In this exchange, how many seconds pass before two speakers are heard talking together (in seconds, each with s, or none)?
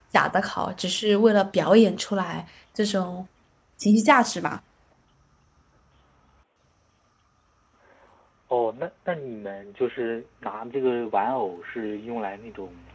none